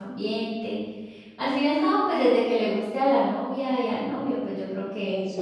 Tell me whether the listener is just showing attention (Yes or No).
No